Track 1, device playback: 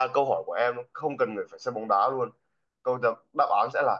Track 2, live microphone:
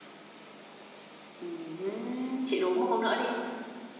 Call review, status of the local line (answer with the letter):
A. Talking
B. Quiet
A